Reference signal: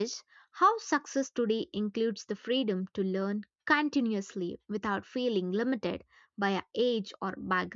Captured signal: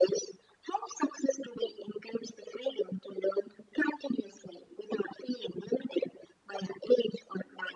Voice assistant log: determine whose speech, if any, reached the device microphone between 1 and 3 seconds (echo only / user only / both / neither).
echo only